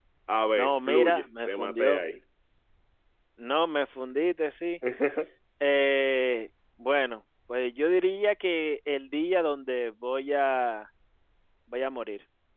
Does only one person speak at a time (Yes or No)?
No